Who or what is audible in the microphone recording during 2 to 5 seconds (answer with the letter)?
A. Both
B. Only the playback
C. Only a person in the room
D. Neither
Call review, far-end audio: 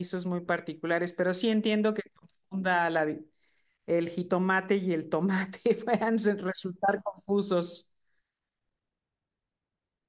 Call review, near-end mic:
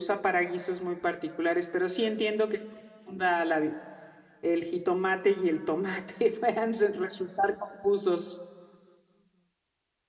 B